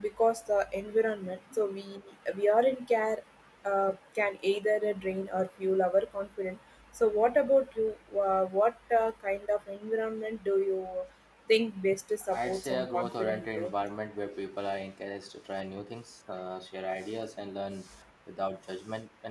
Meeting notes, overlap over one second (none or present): present